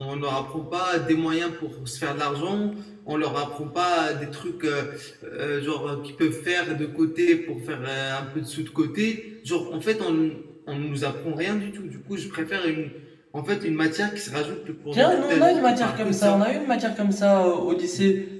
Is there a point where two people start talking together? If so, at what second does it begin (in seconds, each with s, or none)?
14.9 s